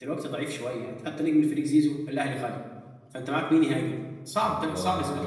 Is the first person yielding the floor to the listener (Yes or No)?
Yes